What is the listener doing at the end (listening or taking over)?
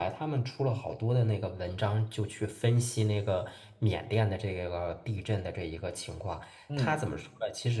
listening